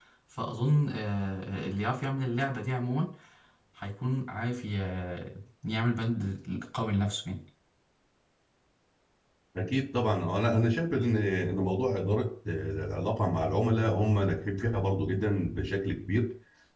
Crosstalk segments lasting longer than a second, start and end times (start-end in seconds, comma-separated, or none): none